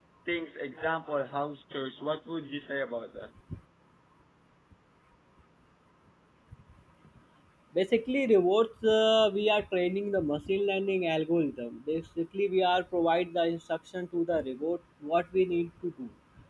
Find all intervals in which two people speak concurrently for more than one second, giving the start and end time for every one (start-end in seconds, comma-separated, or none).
none